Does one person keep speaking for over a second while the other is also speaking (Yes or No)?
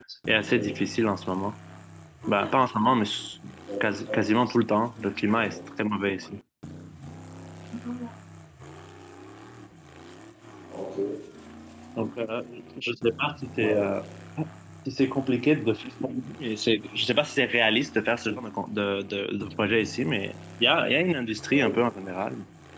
No